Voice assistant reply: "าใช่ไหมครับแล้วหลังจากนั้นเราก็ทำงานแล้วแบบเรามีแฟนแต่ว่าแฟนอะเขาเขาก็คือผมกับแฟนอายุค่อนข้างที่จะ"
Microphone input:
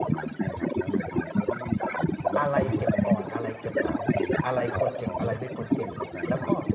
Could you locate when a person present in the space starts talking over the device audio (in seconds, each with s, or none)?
2.4 s